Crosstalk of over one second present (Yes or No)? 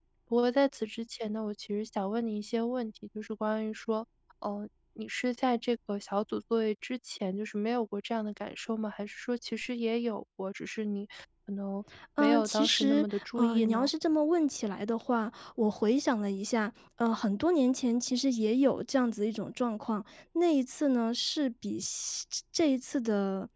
Yes